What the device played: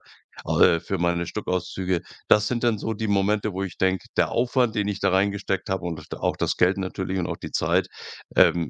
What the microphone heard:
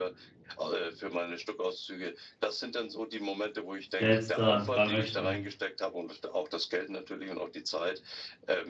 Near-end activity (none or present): present